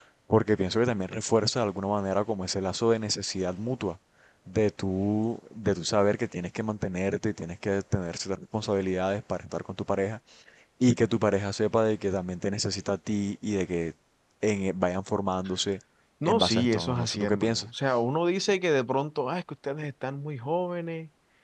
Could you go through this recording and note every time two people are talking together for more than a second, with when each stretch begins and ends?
16.2-17.7

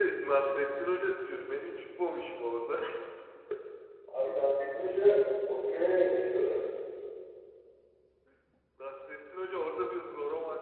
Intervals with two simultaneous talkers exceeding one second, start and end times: none

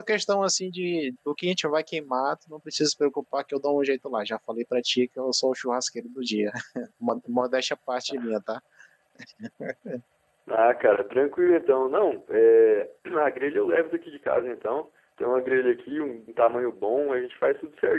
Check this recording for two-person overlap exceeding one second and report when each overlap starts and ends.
none

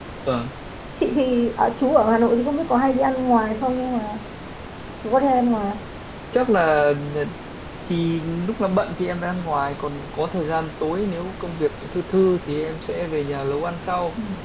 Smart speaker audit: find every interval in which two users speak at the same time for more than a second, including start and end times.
none

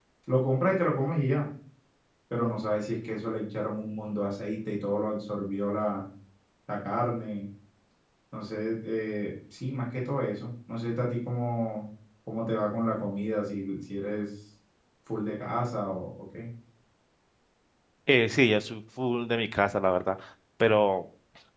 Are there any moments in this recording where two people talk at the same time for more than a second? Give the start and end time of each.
none

